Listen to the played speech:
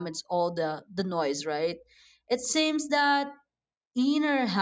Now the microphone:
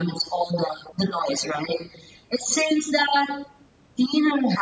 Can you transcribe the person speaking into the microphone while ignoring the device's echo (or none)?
none